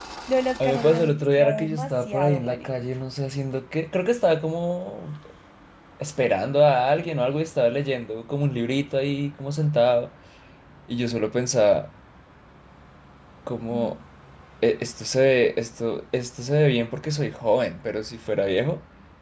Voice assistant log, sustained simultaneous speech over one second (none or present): present